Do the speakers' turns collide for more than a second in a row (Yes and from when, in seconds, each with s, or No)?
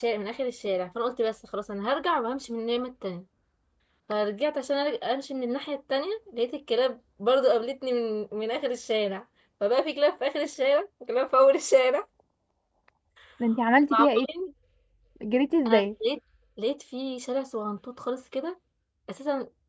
No